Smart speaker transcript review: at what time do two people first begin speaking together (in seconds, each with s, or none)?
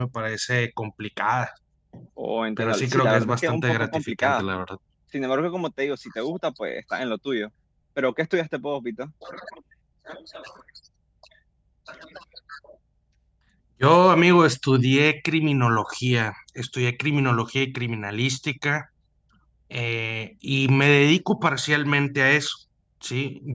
2.6 s